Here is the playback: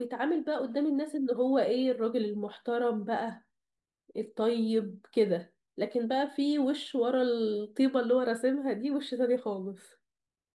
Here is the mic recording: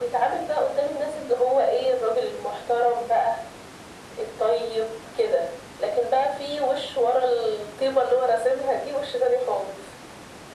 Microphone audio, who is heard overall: echo only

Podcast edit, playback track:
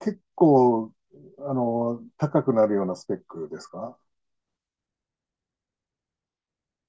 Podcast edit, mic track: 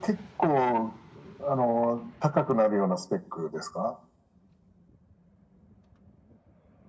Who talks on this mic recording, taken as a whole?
echo only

